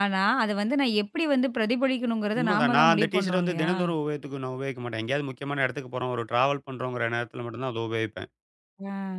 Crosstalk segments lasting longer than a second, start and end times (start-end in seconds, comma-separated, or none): 2.4-3.7